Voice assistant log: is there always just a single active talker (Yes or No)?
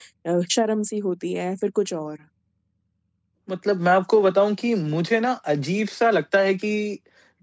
Yes